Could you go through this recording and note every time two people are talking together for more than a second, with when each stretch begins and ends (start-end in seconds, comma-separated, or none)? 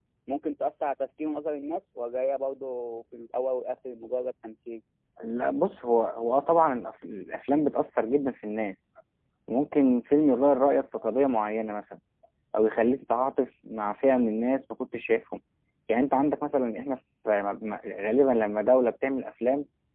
none